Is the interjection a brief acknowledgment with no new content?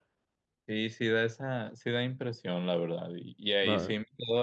Yes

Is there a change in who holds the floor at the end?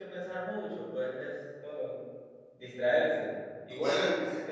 Yes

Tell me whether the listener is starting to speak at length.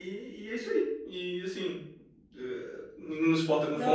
No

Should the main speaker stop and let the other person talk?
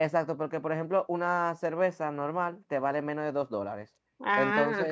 No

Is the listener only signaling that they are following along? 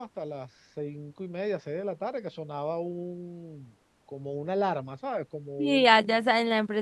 No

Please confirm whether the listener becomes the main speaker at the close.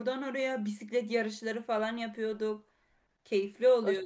Yes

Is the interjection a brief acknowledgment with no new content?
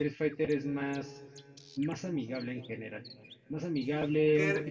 No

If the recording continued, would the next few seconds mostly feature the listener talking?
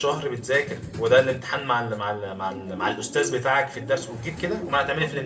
Yes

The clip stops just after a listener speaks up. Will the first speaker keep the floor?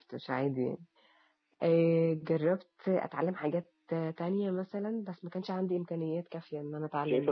No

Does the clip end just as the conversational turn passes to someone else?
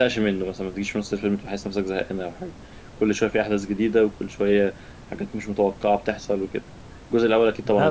Yes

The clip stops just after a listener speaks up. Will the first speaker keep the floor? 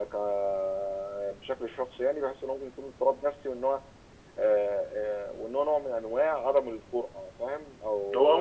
No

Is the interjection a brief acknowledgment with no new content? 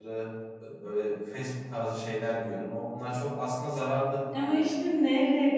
No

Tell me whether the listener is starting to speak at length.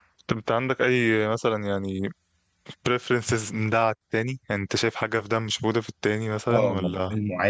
Yes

